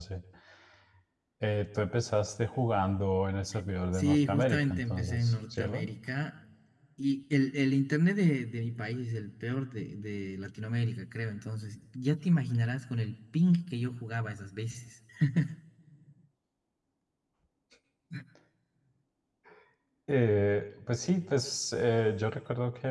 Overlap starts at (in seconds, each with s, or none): 3.9 s